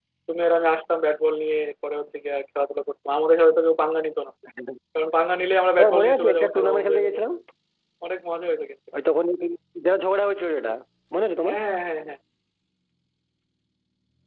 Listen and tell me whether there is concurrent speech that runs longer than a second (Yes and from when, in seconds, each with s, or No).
Yes, from 5.8 s